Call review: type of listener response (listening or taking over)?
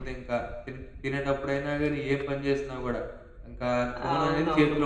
listening